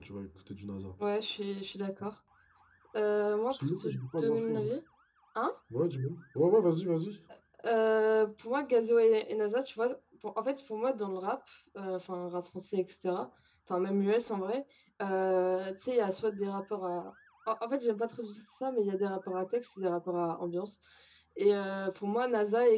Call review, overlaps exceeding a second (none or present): present